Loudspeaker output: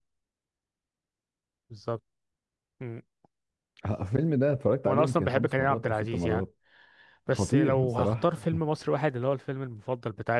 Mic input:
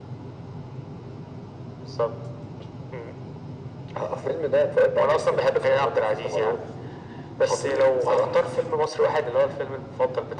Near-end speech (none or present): none